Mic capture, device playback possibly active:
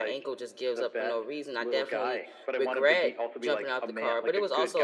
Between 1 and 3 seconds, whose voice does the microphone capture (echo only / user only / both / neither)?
both